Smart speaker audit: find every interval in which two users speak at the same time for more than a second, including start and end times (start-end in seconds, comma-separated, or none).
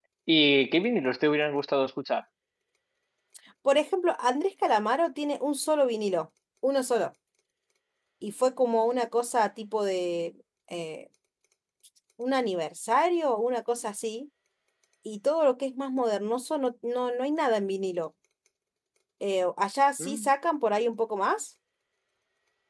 none